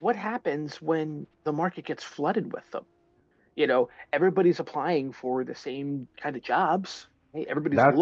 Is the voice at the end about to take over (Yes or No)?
Yes